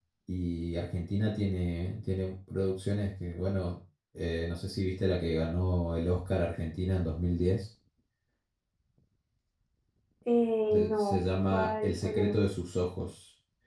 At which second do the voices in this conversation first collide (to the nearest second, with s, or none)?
11 s